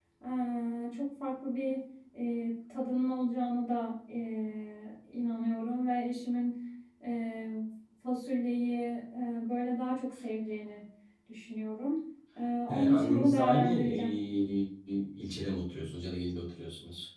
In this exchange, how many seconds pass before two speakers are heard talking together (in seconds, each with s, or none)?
12.7 s